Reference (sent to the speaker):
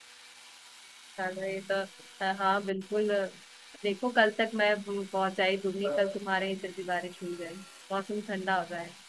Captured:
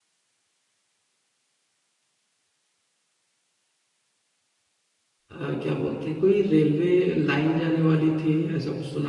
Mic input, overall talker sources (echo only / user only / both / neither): user only